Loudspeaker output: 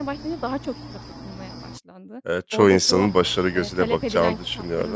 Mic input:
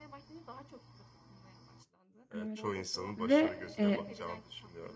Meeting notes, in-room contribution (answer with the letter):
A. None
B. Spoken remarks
B